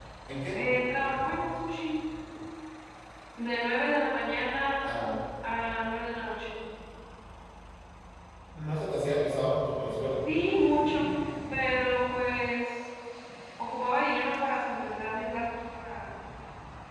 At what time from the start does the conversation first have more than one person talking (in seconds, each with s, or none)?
none